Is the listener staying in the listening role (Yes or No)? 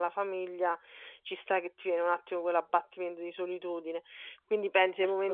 Yes